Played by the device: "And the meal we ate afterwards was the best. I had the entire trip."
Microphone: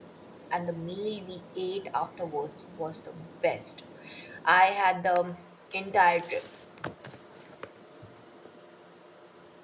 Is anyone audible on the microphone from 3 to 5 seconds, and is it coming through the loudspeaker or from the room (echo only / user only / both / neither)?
echo only